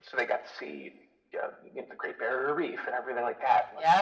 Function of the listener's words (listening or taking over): taking over